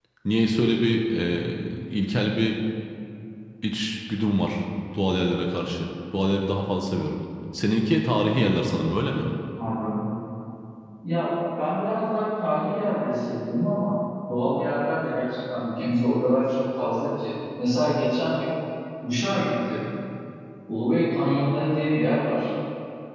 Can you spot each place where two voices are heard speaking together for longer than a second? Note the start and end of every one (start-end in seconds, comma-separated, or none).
none